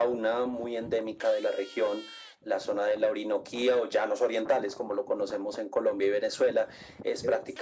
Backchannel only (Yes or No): Yes